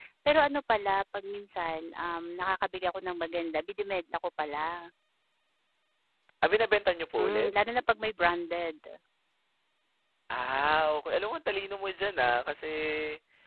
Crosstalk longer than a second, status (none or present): none